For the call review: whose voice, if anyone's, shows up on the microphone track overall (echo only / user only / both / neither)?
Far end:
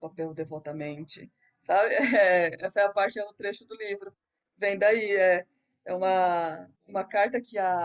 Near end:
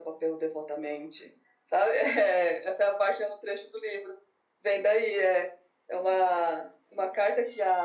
echo only